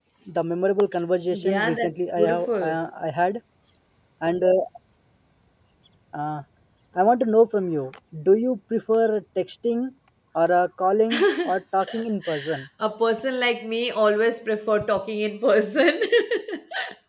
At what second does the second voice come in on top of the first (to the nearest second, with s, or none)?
1 s